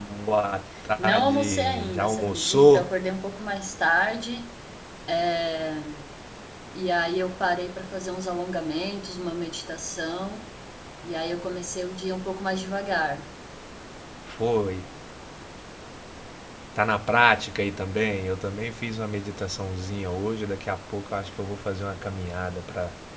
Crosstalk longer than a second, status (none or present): present